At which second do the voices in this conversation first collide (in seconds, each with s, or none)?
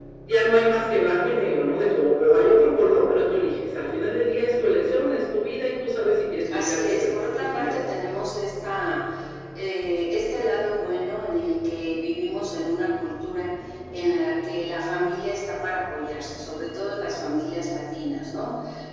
6.4 s